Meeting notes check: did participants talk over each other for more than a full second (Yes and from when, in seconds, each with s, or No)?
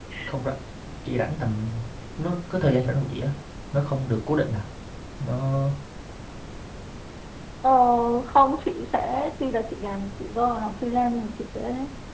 No